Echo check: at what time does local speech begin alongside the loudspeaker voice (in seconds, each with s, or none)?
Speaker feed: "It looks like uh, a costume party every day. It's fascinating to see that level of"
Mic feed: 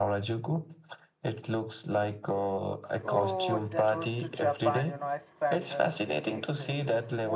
3.0 s